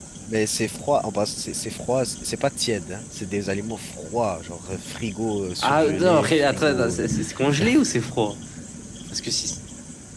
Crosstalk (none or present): present